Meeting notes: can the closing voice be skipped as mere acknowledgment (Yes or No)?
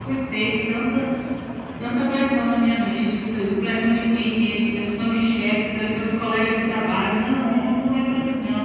Yes